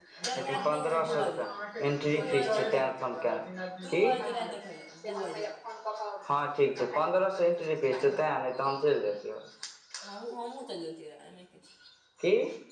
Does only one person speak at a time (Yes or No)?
No